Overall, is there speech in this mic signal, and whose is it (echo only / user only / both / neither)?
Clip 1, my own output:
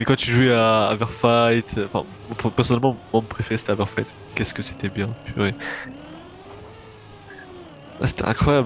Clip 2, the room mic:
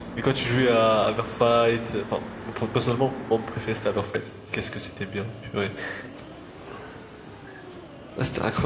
echo only